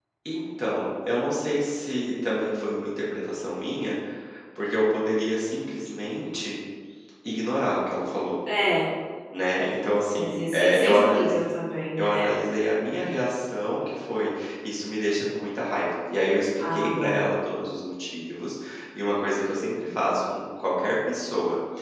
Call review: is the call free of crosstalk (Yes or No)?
No